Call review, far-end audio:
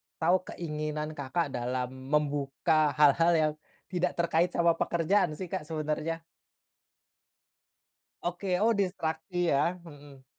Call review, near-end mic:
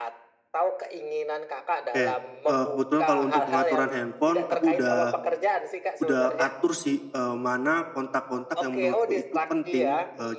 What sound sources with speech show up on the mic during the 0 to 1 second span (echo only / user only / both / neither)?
echo only